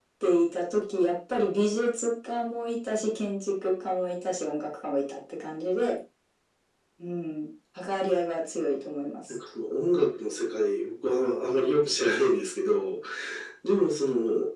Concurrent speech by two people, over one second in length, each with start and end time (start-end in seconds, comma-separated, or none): none